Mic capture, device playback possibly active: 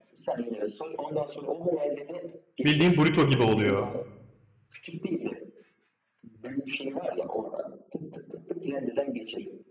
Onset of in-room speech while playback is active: 2.6 s

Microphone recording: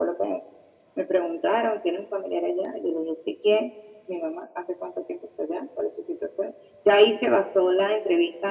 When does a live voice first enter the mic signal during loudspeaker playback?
none

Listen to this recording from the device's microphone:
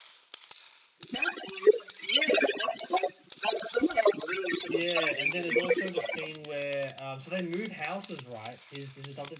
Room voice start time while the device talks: 4.6 s

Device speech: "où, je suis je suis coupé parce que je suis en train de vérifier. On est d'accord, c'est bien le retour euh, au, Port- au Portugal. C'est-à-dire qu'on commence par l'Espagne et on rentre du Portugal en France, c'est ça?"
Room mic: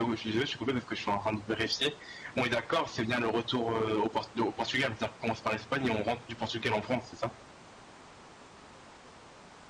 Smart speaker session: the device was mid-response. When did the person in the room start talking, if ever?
none

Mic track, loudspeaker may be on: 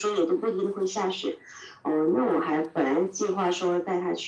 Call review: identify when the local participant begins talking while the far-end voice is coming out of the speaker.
none

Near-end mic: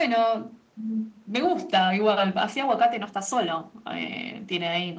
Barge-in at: none

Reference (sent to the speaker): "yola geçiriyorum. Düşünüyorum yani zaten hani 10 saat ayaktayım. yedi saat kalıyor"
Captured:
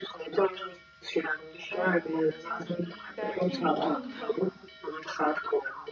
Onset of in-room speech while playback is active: 1.7 s

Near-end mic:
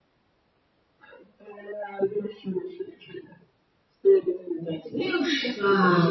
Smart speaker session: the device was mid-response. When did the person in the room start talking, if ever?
4.9 s

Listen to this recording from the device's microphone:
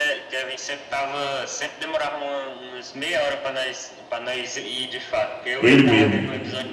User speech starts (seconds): 5.6 s

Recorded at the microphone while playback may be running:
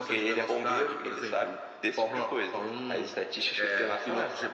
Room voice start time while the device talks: none

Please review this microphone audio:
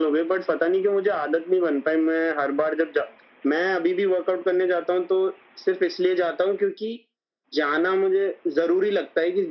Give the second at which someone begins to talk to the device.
none

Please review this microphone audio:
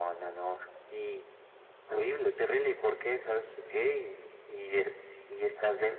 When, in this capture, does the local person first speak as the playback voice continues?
none

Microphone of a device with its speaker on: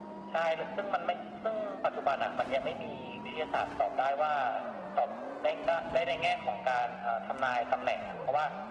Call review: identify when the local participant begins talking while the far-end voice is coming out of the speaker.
none

